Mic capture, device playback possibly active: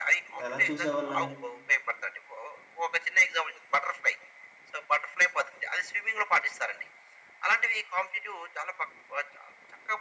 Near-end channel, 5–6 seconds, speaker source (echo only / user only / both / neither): echo only